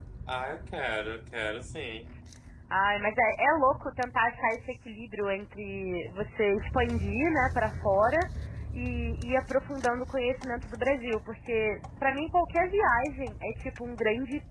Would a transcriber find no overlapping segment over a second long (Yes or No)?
Yes